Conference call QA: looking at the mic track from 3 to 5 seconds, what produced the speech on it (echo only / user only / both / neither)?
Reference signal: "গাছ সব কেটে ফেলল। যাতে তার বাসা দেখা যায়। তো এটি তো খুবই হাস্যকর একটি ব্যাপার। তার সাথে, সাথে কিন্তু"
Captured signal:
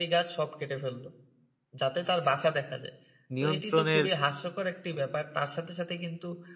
both